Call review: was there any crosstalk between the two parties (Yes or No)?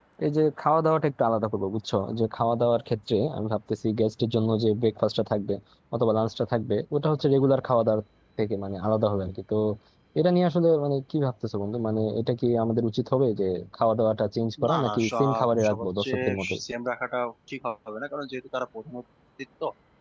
Yes